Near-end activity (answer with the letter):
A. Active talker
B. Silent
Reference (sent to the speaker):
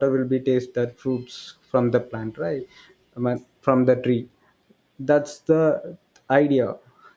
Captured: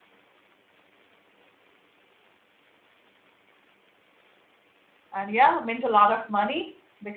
A